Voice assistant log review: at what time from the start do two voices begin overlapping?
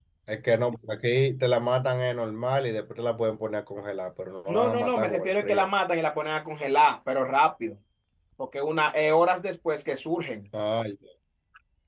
4.5 s

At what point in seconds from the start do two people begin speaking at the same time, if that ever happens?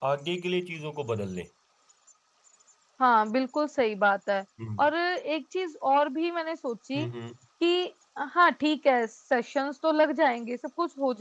none

